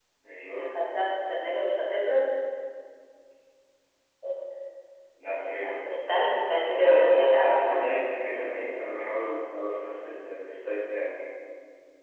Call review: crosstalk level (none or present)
present